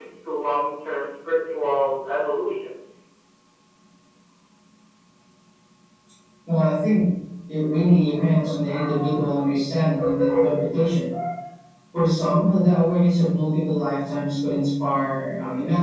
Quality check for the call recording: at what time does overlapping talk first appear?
none

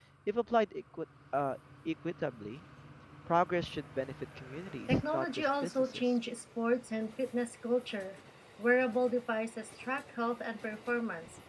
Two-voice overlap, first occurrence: 5 s

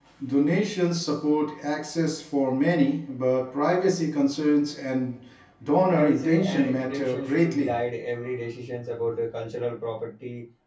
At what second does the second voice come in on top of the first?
6 s

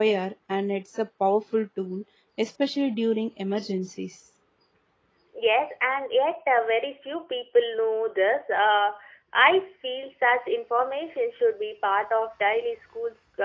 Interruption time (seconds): none

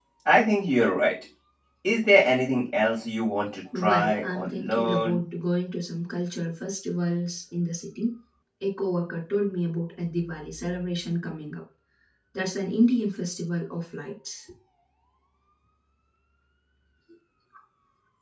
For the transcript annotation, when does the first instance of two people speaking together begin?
4 s

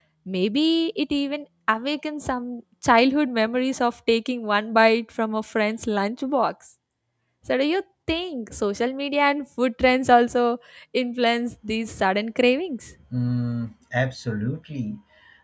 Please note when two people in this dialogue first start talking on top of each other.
none

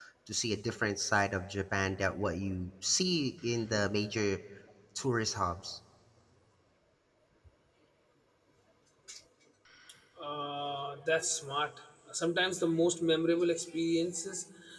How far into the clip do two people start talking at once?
none

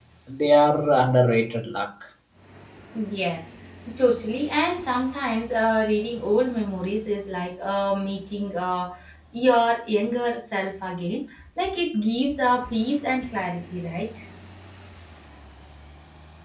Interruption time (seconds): none

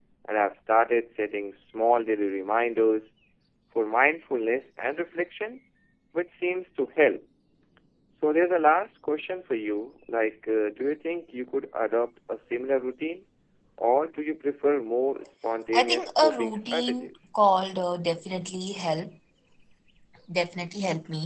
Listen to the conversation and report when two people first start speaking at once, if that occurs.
16 s

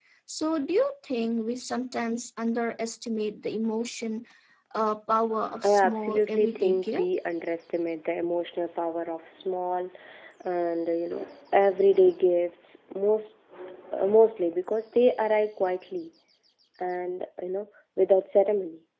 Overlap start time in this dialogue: 6 s

